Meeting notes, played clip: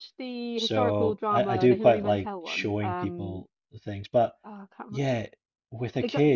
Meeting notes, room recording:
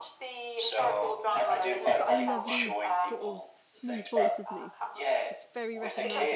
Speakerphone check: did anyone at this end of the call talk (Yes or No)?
Yes